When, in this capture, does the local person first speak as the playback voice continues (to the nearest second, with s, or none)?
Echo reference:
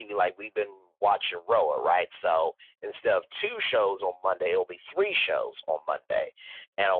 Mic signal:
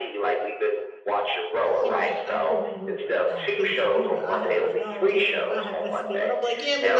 2 s